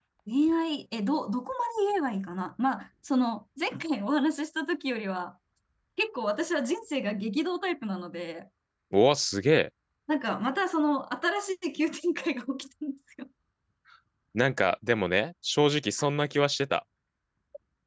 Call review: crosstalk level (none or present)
none